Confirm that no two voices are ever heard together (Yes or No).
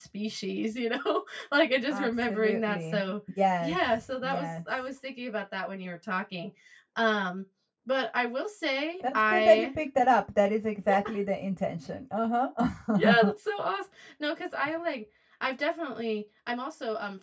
No